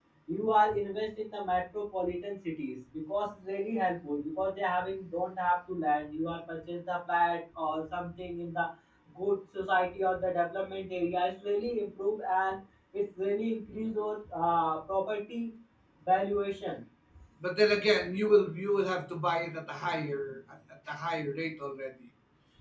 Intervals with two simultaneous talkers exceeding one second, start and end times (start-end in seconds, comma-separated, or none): none